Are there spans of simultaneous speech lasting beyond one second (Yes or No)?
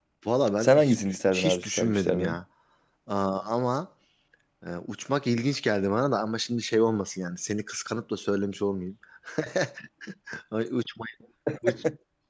Yes